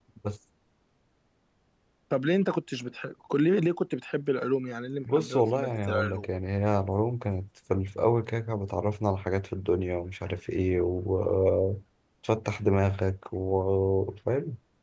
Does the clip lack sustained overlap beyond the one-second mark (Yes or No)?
No